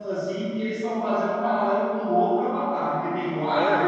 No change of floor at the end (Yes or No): No